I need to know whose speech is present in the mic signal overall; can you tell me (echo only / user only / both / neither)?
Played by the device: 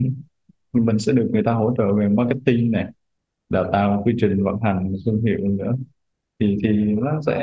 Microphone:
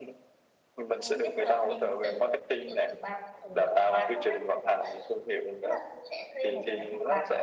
both